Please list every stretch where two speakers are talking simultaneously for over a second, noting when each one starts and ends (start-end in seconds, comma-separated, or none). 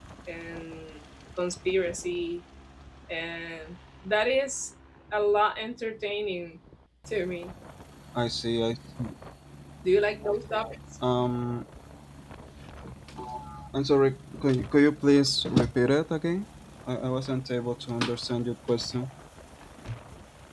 none